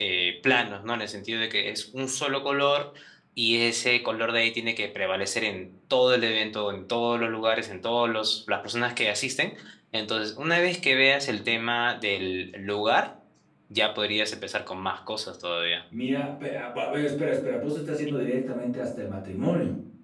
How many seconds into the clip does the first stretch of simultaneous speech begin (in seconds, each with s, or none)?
none